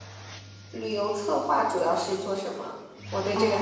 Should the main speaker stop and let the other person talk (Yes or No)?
Yes